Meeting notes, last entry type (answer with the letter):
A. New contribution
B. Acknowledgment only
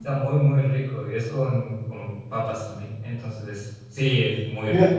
A